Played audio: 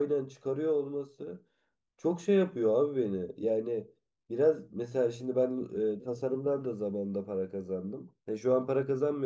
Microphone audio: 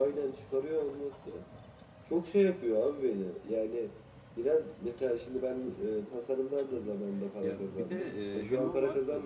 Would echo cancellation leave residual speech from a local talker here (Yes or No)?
Yes